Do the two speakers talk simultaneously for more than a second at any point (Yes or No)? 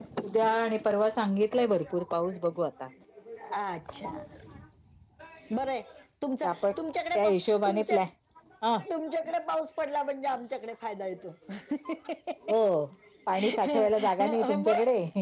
Yes